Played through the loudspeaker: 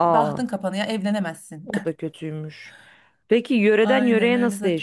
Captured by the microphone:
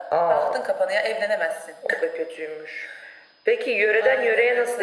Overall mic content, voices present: echo only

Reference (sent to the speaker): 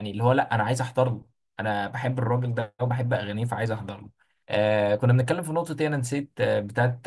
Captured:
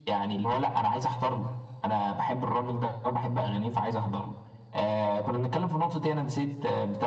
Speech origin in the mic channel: echo only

